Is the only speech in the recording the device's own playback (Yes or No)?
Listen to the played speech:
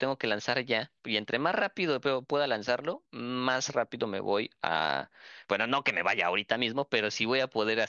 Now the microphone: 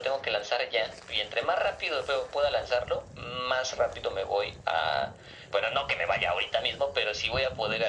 Yes